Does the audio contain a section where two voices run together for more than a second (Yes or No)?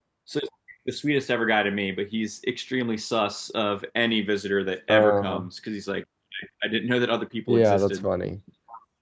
No